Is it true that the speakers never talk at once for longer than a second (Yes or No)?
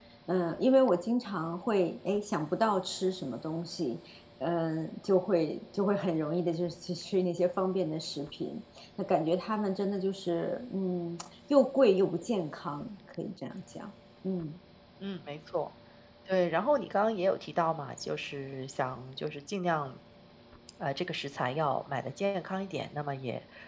Yes